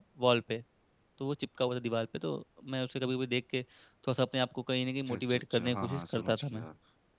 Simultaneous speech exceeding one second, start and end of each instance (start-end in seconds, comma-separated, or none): 5.1-6.7